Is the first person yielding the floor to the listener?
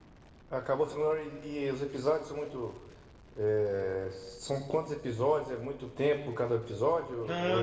Yes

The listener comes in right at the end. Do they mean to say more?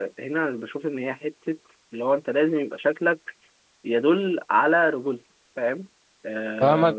Yes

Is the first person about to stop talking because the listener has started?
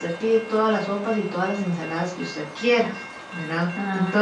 Yes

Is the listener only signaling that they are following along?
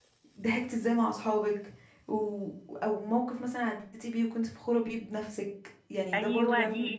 No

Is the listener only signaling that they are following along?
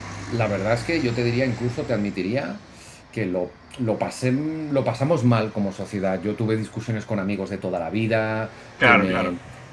Yes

